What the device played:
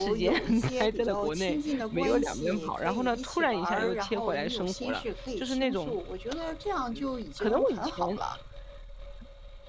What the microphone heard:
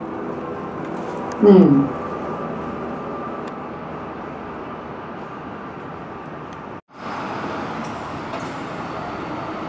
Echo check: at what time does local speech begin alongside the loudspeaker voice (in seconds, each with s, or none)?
1.4 s